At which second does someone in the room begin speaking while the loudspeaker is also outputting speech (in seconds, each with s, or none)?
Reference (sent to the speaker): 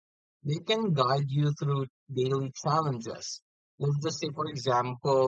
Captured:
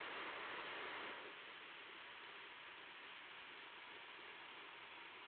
none